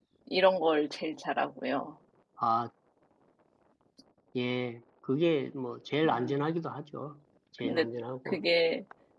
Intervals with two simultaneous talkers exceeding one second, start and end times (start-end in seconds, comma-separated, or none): none